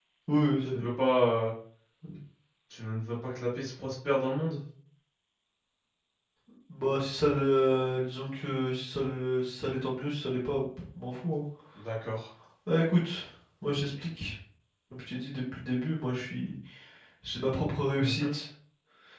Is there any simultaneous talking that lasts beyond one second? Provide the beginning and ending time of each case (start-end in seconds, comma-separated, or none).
none